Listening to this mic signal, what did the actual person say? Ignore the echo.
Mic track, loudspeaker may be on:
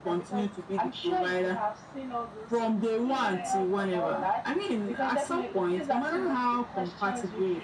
Yeah. Well.

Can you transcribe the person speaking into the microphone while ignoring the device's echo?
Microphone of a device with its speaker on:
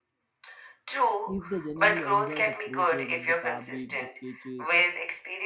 if they genuinely enjoy the process, like the fabric, the sketches,

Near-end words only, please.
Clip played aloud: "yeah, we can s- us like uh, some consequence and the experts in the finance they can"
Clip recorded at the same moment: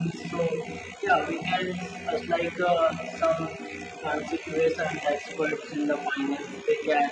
none

